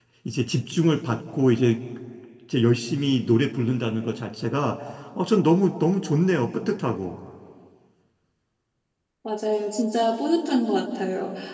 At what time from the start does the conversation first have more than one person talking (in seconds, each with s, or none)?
none